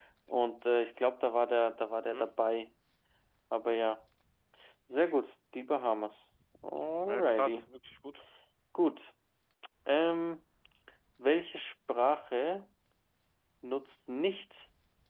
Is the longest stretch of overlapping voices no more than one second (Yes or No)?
Yes